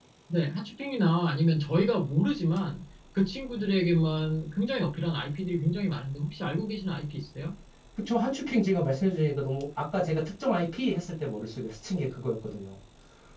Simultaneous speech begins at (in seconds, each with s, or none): none